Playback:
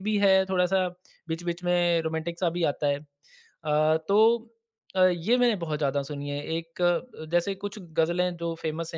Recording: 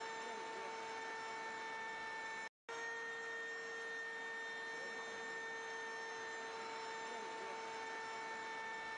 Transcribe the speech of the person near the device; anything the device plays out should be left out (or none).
none